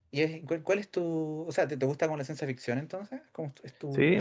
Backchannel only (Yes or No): No